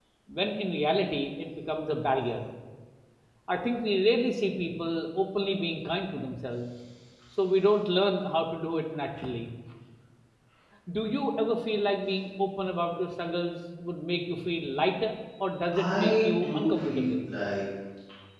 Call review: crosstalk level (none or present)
present